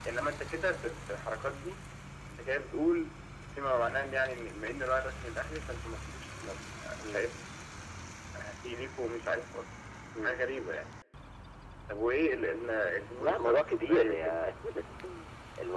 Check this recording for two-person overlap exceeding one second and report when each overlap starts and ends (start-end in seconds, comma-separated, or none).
13.2-14.4